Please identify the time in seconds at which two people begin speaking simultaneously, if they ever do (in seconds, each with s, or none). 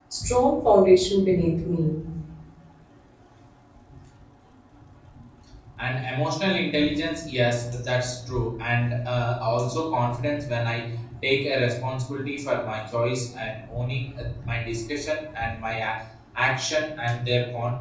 none